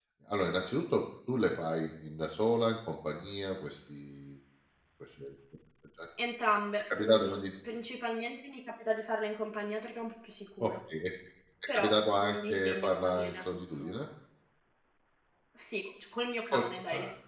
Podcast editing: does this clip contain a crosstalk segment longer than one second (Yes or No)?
Yes